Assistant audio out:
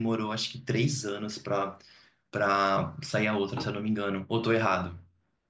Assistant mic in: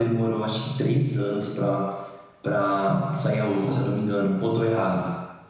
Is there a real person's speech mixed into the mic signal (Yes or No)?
No